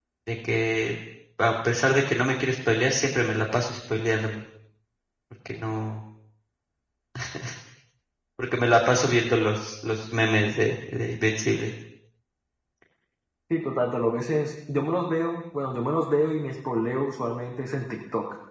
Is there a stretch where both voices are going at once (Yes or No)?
No